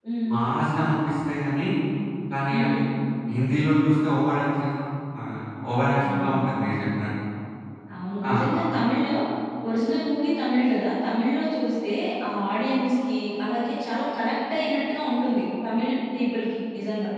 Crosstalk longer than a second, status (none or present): none